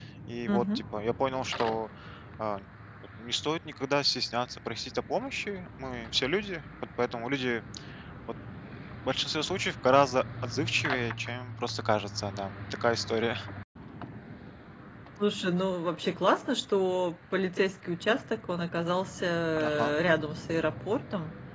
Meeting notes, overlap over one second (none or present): none